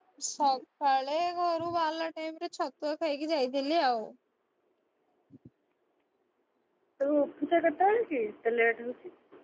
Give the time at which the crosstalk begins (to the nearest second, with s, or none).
none